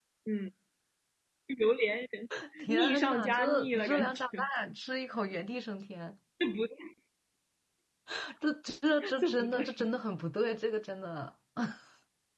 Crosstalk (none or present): present